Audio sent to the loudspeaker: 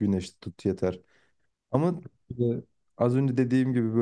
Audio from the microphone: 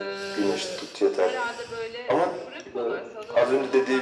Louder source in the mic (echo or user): echo